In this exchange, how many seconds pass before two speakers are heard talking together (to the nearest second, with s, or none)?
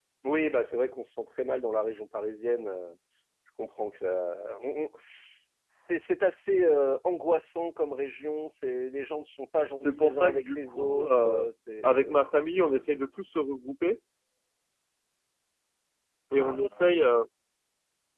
10 s